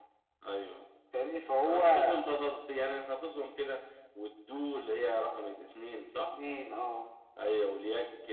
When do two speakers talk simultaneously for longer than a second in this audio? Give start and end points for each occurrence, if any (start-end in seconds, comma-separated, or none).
none